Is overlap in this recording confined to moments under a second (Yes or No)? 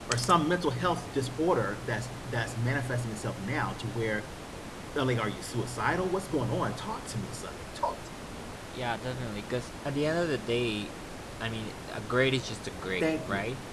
Yes